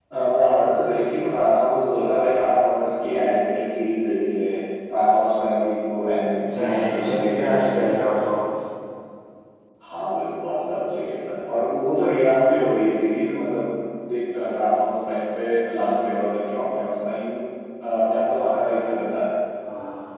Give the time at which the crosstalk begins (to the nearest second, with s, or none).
6 s